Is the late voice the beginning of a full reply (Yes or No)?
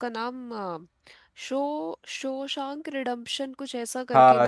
Yes